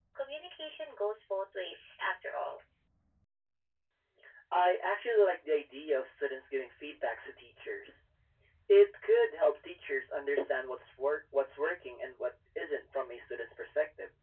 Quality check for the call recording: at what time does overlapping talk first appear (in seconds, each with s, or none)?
none